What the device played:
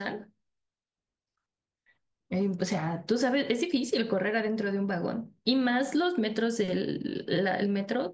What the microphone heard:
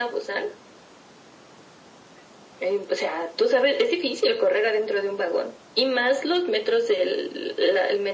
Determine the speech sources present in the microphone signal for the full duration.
echo only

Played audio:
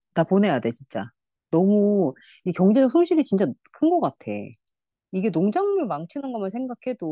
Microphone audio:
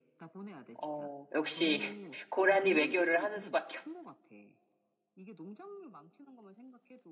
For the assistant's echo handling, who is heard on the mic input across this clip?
both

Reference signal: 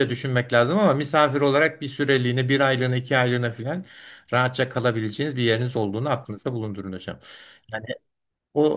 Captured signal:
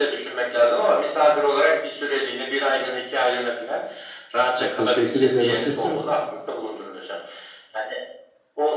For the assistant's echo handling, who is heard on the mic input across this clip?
both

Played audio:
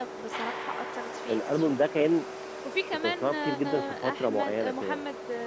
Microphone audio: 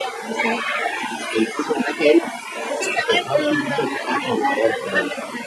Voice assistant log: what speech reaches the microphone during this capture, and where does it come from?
echo only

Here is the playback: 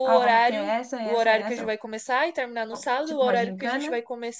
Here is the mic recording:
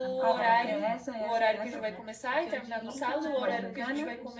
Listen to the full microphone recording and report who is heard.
both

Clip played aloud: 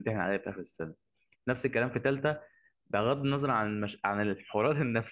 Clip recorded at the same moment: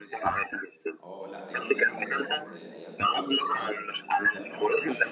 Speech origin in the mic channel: both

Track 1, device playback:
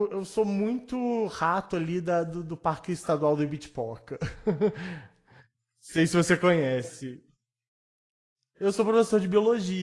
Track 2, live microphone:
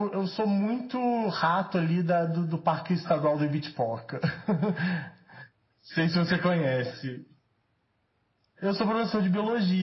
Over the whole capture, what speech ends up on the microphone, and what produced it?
echo only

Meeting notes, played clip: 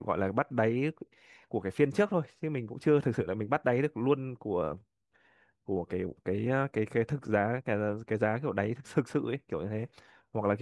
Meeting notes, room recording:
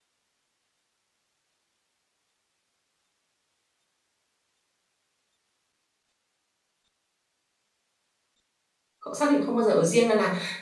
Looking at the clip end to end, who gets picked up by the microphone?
user only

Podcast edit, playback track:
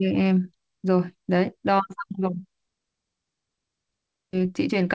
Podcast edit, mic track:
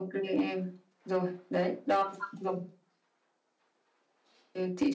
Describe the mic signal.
echo only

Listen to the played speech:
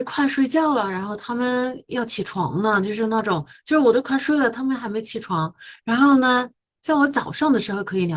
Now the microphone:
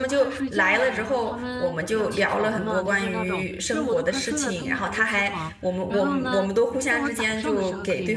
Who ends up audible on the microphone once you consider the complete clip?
both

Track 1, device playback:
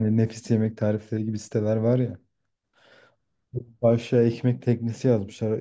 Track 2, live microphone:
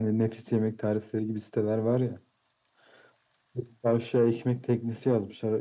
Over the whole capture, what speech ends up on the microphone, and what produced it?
echo only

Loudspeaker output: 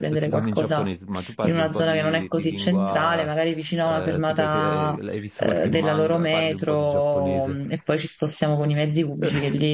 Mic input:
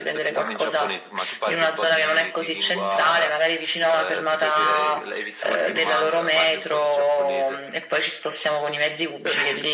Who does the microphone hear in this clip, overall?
echo only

